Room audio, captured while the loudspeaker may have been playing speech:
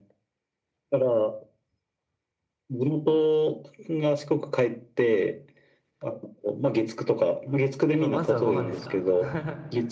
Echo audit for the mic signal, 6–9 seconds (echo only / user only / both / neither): both